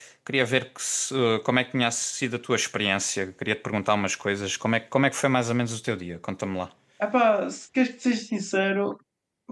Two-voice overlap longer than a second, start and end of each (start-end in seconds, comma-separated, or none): none